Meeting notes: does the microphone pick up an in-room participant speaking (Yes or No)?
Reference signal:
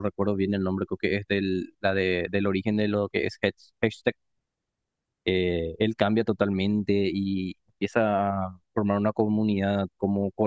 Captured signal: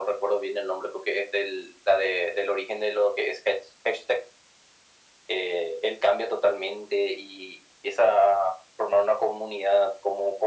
No